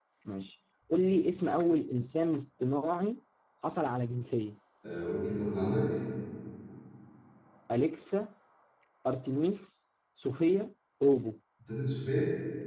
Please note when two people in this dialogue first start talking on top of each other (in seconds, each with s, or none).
none